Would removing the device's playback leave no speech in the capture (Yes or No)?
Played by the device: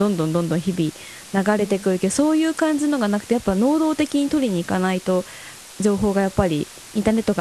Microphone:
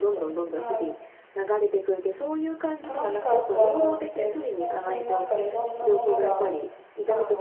No